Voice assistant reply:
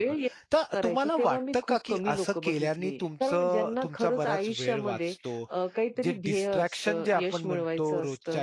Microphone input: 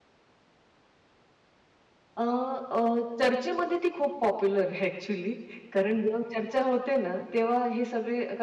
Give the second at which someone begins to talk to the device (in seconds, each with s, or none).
2.2 s